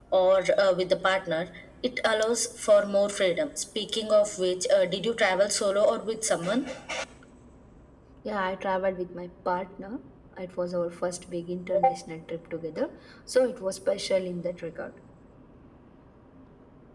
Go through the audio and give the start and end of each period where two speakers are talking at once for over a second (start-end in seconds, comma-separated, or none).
none